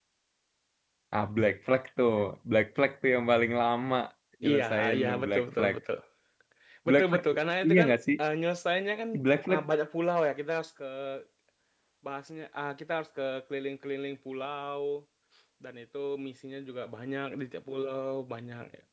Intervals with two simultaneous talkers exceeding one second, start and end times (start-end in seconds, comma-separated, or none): 4.5-5.8